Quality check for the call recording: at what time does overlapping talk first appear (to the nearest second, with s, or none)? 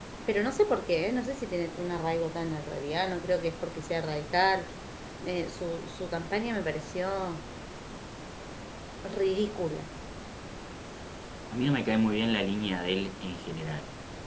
none